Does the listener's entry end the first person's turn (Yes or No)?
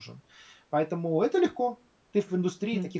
Yes